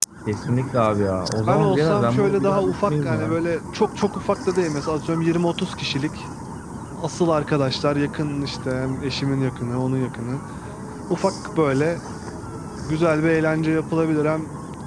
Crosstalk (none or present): present